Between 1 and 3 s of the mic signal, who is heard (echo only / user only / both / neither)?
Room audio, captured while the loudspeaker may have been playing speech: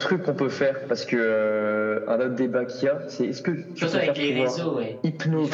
echo only